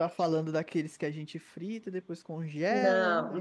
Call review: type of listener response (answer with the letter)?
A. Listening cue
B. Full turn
B